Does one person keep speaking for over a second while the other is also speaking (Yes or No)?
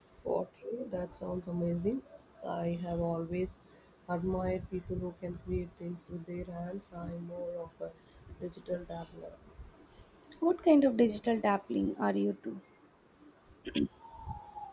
No